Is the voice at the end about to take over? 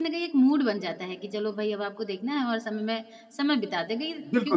Yes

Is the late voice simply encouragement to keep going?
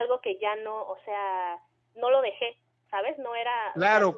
No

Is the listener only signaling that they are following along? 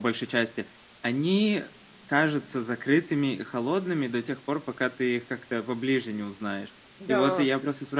Yes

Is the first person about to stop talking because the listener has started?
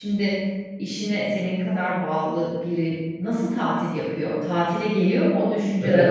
Yes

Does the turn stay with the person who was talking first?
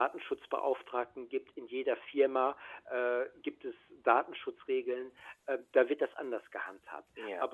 Yes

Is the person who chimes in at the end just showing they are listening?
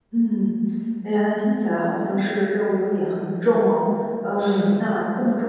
Yes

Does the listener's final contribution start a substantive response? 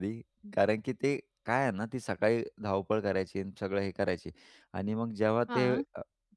No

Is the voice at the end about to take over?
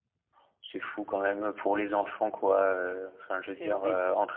No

